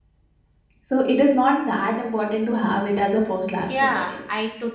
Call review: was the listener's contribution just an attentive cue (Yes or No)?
No